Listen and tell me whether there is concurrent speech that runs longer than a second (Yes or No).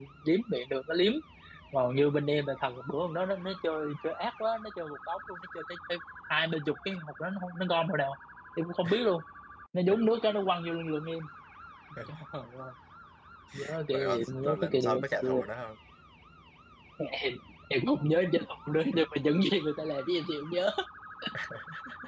Yes